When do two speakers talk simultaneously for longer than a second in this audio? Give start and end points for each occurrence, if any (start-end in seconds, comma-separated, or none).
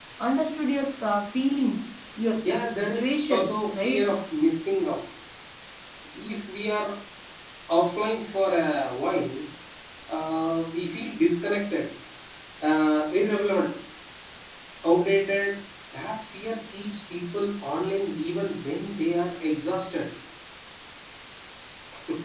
2.8-4.0